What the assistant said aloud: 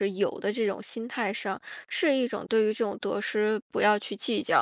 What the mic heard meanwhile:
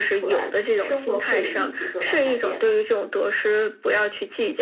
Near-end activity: present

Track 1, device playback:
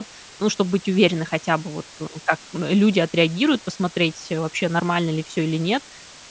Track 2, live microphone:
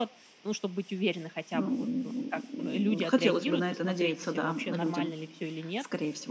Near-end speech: present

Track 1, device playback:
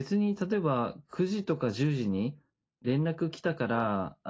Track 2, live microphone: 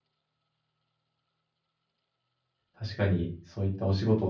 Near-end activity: present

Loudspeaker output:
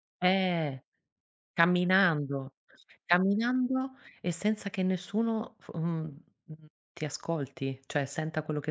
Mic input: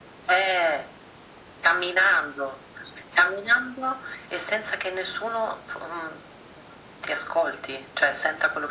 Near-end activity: none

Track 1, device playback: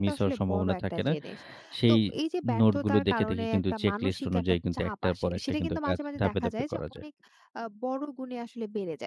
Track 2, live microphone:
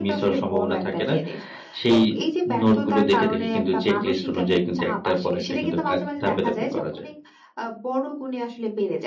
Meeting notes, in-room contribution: none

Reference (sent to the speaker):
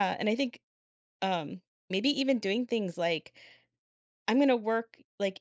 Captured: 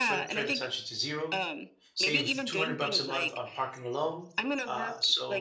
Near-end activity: present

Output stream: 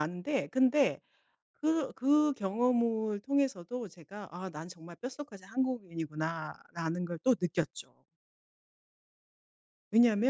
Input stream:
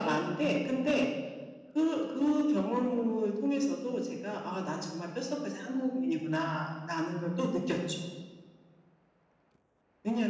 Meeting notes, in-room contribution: none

